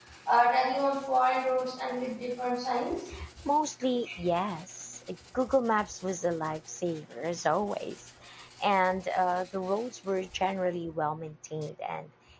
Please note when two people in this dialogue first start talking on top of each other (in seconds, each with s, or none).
none